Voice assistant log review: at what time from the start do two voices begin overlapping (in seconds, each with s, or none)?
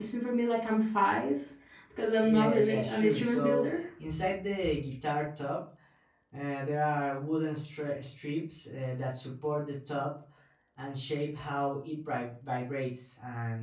2.2 s